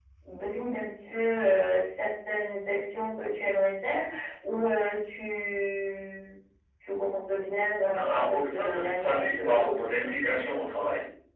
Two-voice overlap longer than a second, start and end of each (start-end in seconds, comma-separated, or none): 7.9-10.4